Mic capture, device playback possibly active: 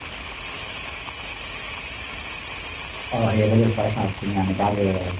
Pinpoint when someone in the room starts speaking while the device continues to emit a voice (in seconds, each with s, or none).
3.1 s